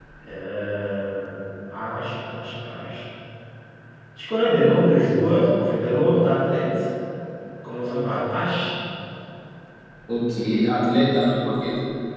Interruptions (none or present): none